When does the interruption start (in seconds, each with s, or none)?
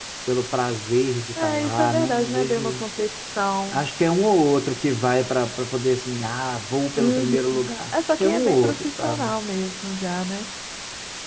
1.4 s